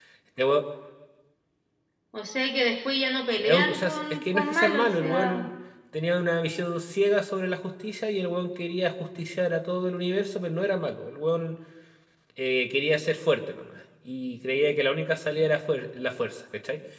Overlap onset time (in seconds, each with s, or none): 3.4 s